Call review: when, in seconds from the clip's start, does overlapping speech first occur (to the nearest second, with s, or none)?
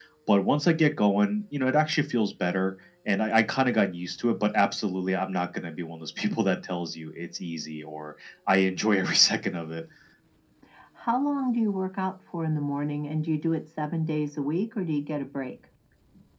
none